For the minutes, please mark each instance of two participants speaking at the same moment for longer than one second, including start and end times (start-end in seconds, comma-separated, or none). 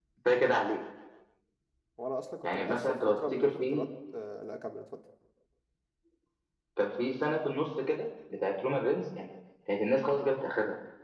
2.4-3.8